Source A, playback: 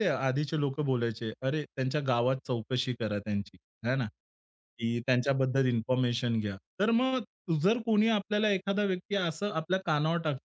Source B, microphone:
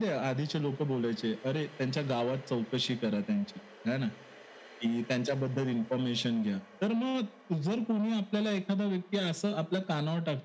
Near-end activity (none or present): none